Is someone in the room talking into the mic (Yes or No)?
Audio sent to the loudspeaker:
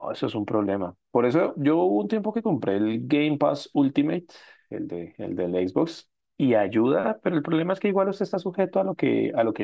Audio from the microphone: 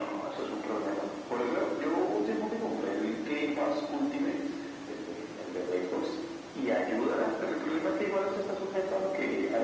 No